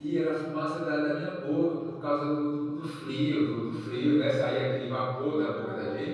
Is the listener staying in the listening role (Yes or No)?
Yes